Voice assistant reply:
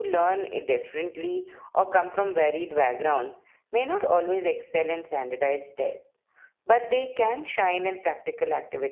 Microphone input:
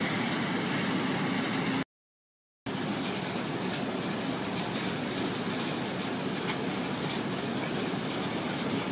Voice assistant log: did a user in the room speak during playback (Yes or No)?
No